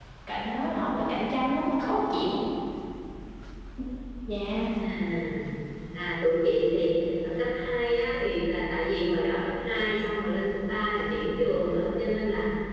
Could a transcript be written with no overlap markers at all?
Yes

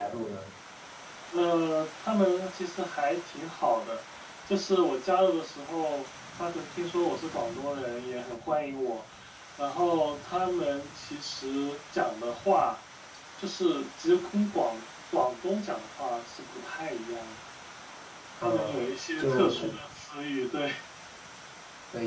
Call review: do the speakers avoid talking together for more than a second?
No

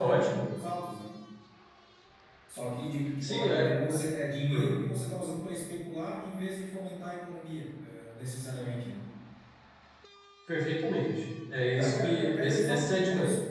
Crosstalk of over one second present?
Yes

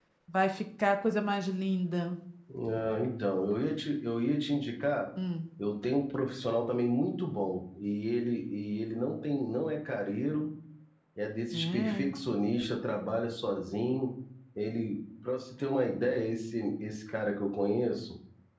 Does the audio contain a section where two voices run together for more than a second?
No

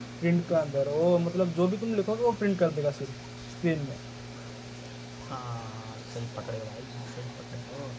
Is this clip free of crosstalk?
Yes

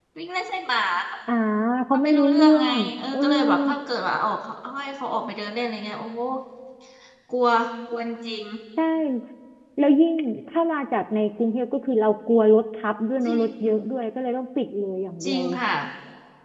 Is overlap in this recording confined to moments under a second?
No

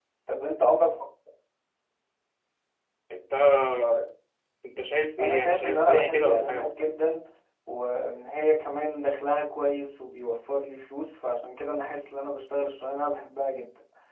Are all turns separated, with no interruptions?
No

